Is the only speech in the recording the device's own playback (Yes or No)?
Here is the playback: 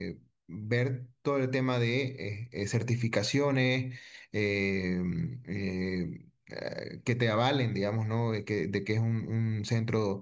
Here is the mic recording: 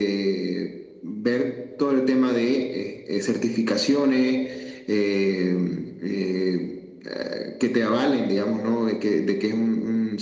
Yes